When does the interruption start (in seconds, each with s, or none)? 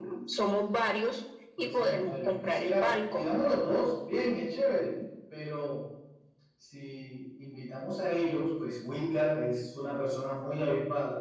1.6 s